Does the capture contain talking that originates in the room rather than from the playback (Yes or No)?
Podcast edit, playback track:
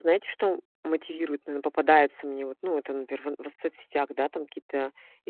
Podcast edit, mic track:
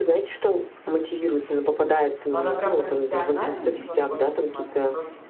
Yes